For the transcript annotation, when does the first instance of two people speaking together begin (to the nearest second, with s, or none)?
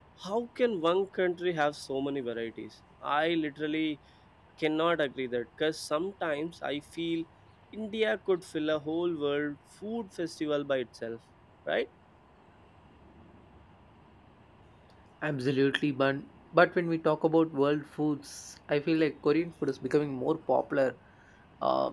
none